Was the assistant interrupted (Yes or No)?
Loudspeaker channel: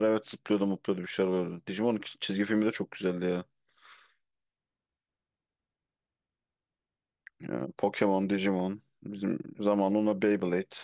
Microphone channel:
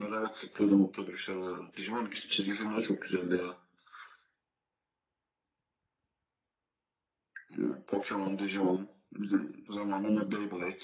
No